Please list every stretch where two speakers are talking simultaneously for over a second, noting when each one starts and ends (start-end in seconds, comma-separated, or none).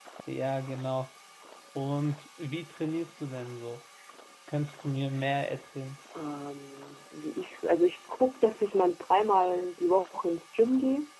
none